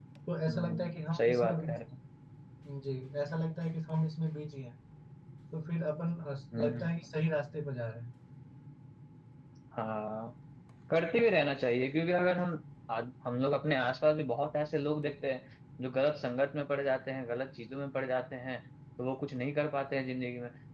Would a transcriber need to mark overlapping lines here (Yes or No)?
Yes